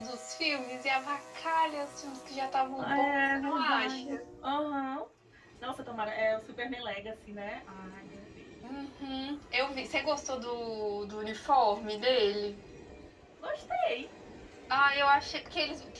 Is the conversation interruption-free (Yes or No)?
No